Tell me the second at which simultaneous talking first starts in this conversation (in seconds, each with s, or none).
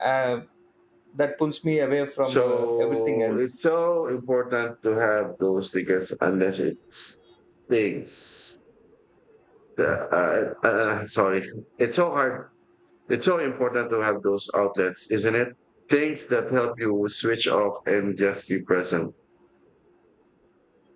2.3 s